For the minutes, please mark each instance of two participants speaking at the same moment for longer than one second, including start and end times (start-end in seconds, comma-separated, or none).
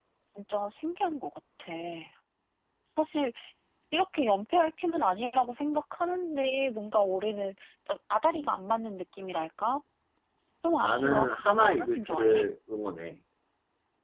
10.8-12.4